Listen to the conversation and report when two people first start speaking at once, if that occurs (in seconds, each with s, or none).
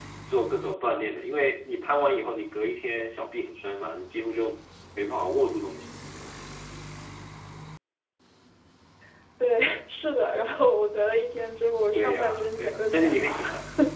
11.9 s